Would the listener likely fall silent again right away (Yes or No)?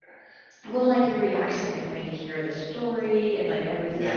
Yes